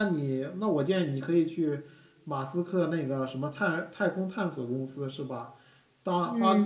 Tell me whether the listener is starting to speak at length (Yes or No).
No